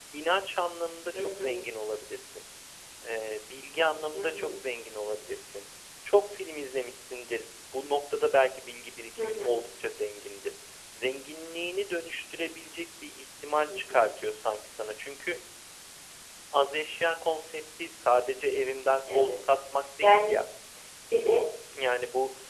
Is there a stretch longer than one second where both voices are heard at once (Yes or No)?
No